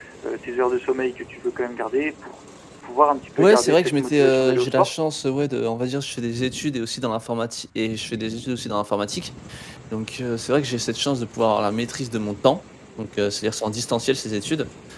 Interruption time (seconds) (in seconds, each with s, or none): 3.4 s